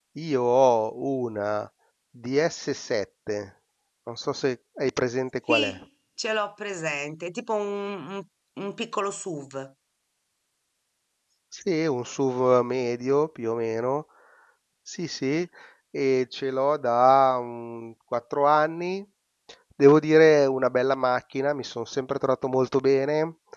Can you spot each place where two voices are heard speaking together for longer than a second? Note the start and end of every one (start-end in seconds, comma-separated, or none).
none